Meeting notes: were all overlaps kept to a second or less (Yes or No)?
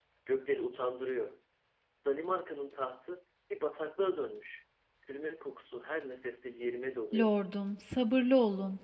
Yes